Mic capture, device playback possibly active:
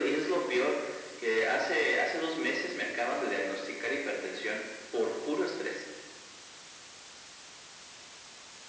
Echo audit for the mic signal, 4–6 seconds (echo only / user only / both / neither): echo only